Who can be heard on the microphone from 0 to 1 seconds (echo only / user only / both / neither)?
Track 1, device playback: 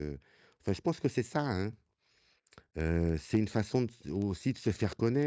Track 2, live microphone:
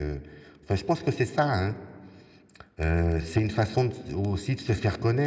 echo only